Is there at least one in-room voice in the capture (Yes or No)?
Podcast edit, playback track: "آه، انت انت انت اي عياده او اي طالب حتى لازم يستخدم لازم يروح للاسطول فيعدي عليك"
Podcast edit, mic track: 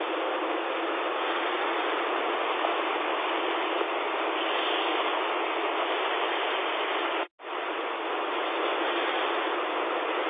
No